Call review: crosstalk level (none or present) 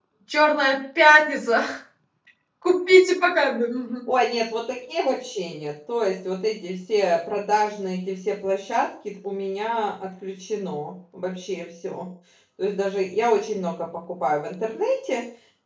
none